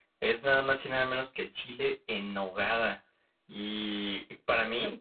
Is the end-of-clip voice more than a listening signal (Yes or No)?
No